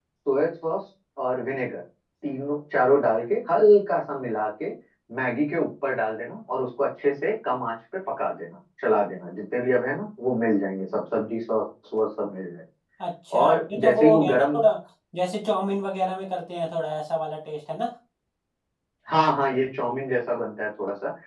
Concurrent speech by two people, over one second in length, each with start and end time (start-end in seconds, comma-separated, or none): 13.4-14.6